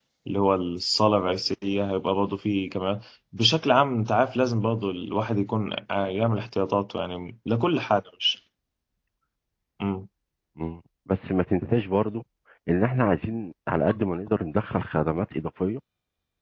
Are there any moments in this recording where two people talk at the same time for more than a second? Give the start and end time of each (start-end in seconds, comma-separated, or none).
none